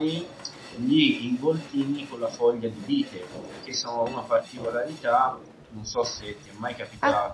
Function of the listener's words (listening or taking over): taking over